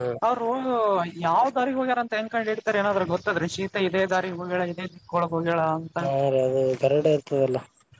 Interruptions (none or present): none